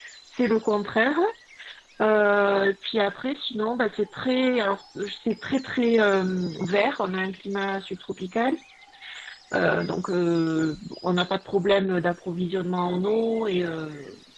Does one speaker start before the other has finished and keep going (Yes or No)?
No